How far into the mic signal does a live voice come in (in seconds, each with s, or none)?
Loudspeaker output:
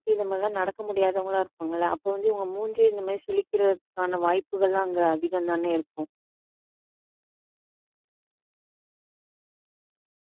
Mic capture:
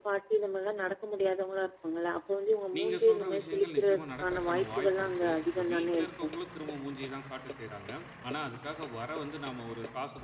2.8 s